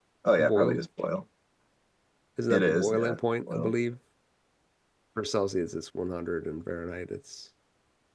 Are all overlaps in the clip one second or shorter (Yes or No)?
No